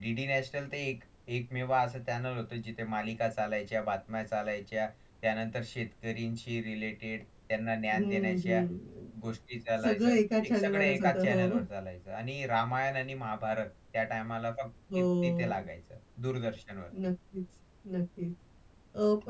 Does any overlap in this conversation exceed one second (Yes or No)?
Yes